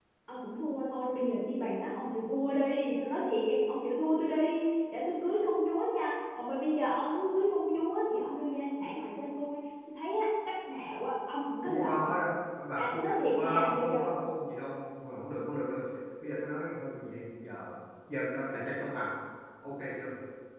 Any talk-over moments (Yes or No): Yes